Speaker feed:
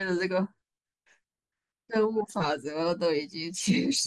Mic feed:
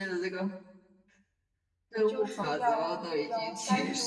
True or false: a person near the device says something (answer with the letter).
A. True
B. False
A